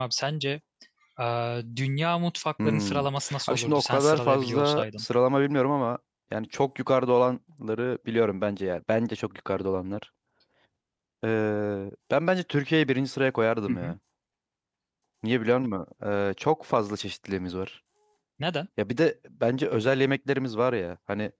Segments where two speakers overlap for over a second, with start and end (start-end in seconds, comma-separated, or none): 3.5-5.0